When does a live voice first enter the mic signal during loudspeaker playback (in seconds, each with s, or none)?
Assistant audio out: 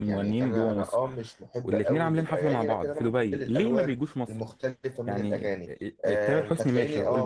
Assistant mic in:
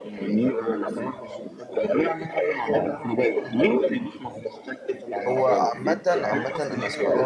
5.3 s